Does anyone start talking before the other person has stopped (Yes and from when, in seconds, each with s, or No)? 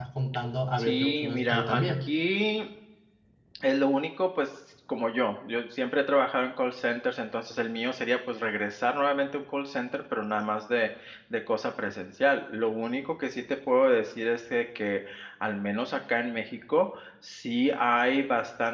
Yes, from 0.8 s